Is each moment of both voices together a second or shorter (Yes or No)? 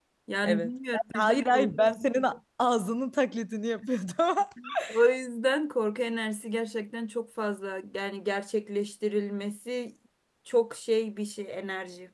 No